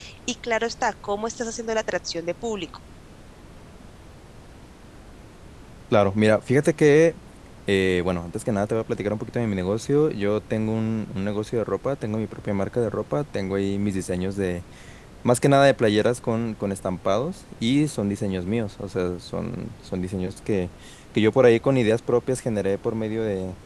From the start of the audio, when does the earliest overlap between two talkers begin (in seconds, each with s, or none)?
none